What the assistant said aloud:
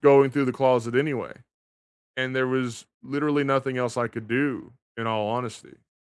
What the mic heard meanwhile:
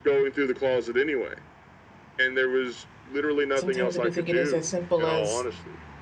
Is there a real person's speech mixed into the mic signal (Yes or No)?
Yes